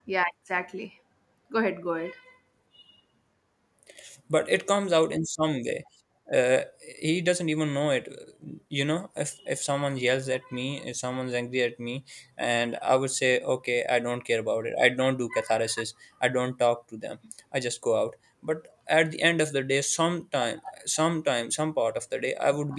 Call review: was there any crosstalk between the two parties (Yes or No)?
No